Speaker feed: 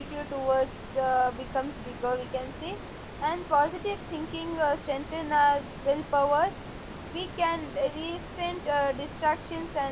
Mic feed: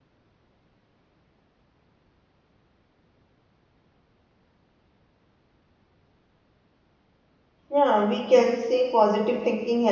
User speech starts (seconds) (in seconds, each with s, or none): 7.7 s